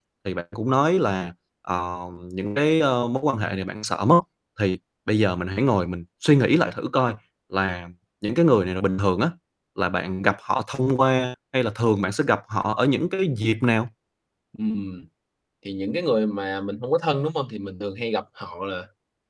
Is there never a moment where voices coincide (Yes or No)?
Yes